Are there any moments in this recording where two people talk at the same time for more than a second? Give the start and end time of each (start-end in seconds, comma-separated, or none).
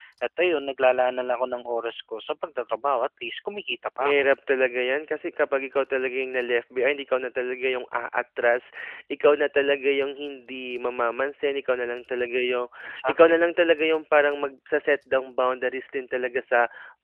none